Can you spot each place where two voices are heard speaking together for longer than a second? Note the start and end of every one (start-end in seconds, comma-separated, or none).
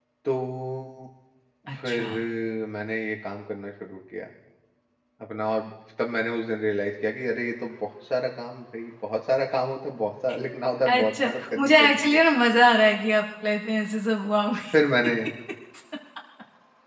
10.9-12.2